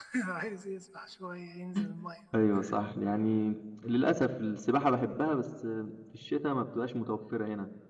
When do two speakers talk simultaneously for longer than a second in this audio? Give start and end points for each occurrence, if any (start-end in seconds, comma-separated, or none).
none